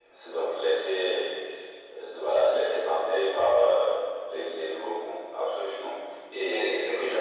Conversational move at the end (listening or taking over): listening